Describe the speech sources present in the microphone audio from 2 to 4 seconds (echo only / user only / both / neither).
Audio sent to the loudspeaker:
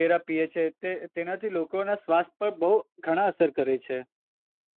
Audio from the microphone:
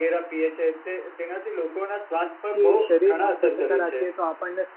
both